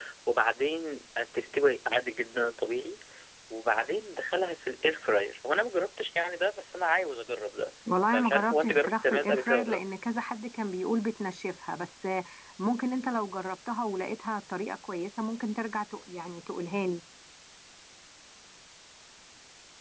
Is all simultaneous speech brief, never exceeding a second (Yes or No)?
No